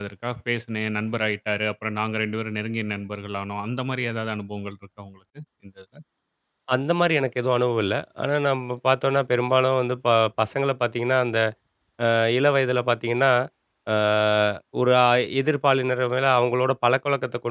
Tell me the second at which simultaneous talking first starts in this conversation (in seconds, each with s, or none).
none